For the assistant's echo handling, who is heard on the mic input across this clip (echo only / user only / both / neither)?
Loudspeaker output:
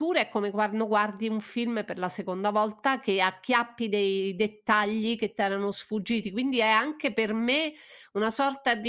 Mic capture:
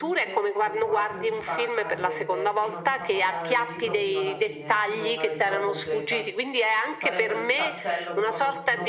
both